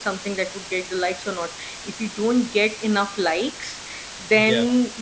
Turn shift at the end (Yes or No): No